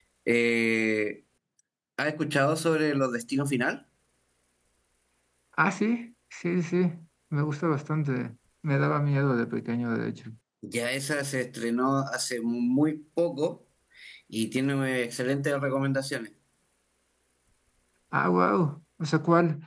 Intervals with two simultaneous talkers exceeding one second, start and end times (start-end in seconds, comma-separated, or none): none